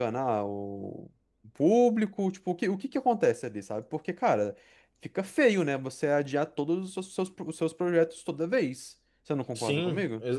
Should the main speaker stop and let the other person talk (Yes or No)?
Yes